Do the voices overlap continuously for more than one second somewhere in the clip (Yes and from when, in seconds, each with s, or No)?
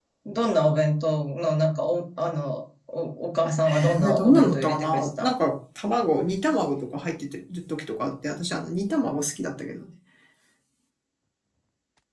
Yes, from 3.6 s